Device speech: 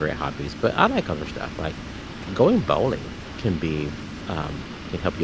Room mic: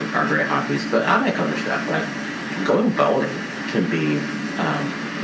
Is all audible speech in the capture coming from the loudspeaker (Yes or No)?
Yes